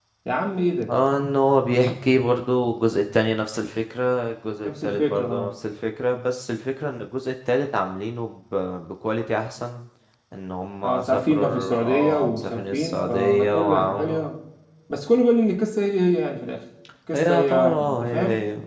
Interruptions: present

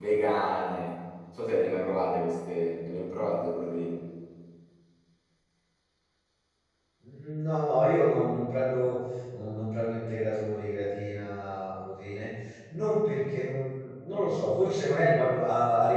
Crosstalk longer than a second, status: none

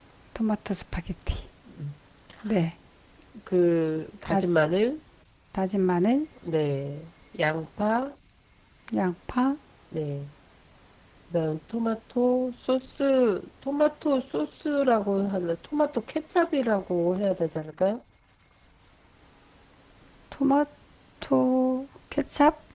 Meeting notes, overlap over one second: none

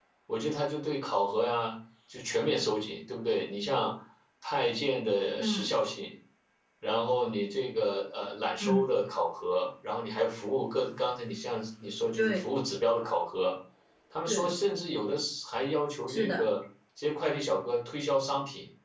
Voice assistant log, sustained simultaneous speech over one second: none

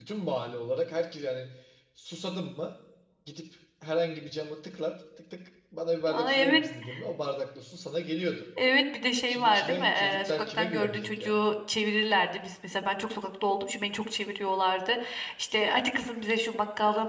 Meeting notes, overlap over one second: present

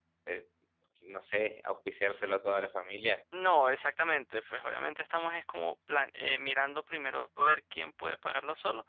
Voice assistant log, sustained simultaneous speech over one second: none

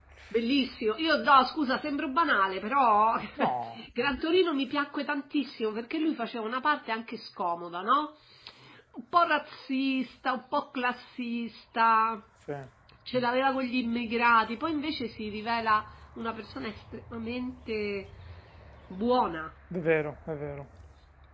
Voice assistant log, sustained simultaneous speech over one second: none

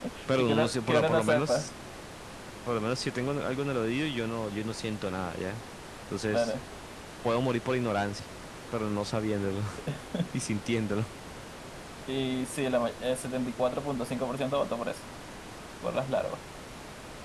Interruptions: present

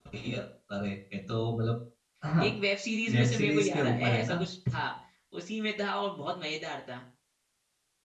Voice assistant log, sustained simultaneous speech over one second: present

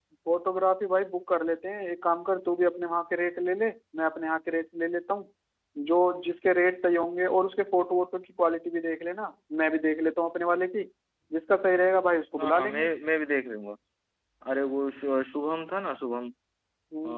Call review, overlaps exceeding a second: none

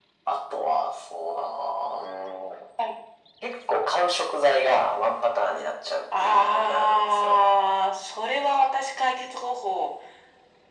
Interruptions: present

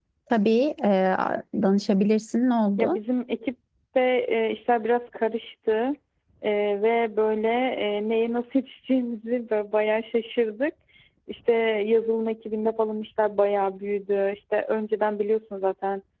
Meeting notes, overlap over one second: none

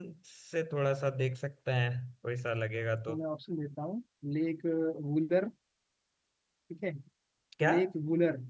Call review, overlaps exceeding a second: none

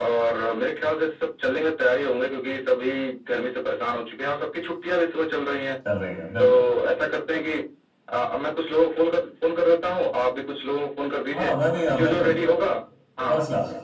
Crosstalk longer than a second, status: none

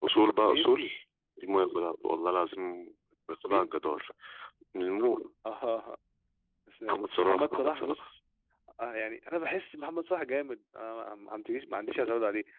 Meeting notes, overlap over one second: present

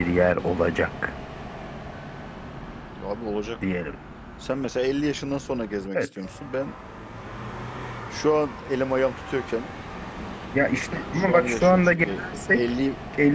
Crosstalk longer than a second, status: present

